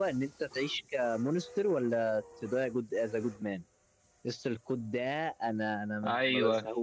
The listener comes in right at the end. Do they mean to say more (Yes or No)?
No